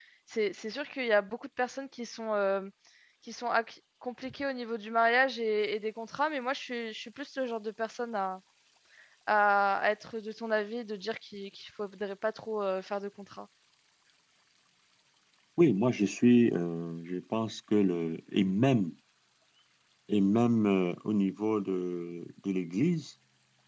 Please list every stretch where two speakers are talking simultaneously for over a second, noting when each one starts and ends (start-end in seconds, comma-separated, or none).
none